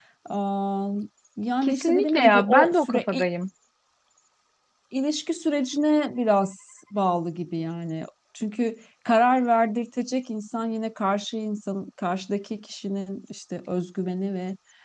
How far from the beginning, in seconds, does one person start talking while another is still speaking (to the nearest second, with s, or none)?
2 s